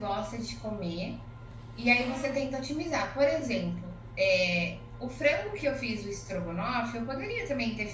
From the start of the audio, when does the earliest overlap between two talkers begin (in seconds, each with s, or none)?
none